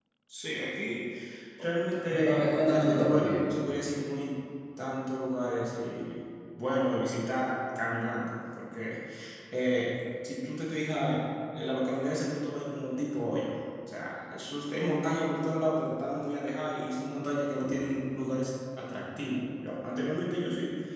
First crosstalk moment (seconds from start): 2 s

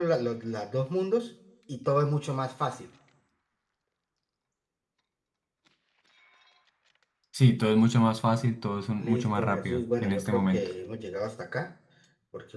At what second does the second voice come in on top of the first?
9 s

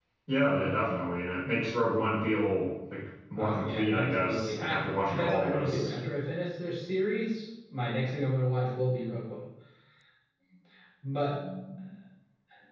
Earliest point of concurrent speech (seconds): 3 s

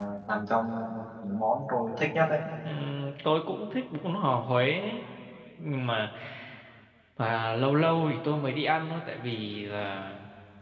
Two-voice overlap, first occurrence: none

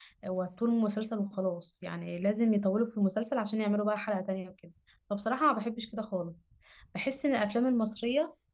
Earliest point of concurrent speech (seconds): none

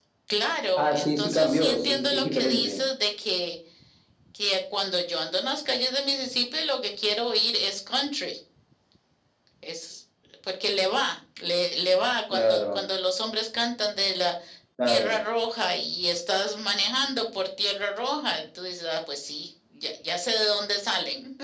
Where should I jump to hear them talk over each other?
1 s

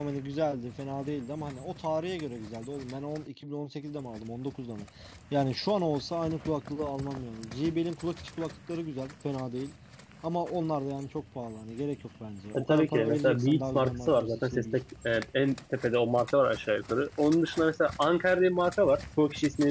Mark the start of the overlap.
13 s

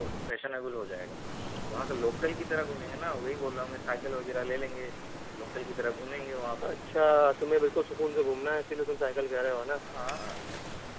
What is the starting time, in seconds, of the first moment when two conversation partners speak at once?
none

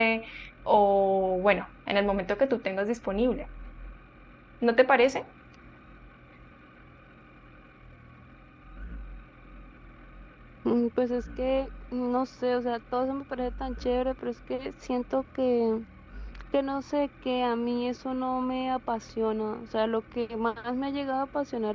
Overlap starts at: none

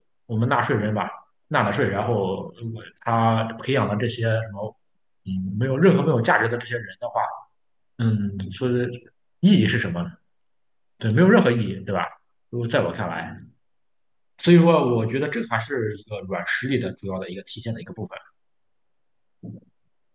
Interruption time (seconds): none

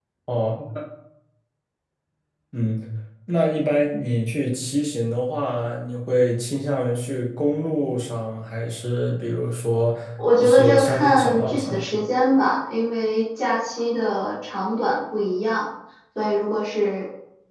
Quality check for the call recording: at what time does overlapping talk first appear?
10 s

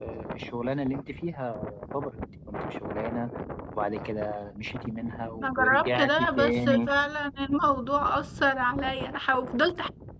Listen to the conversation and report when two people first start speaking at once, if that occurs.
5 s

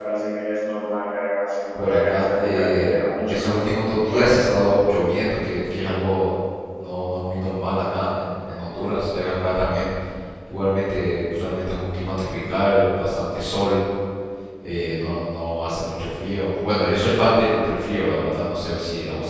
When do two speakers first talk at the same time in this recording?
2 s

